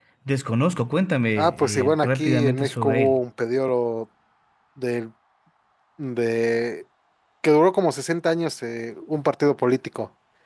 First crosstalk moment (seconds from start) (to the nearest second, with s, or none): 1 s